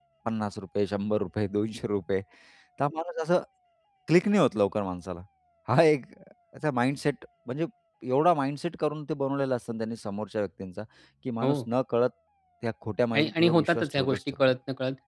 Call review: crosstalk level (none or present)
present